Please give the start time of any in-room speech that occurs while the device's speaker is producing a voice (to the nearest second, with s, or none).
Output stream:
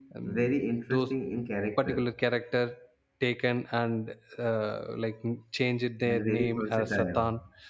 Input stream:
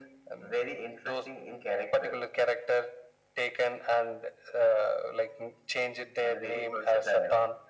none